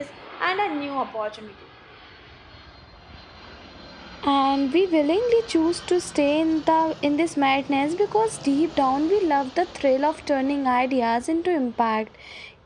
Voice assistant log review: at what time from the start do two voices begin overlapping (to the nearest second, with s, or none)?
none